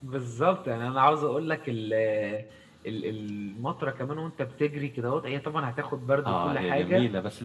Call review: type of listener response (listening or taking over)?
taking over